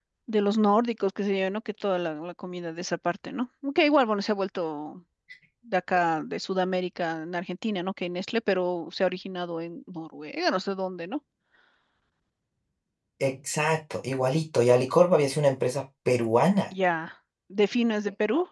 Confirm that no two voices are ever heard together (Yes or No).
Yes